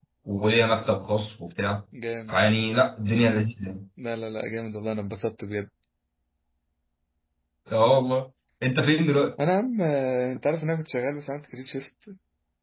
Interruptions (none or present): none